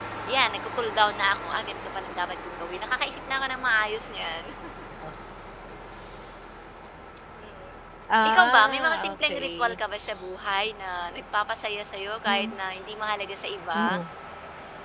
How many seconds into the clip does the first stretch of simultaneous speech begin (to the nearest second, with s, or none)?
8 s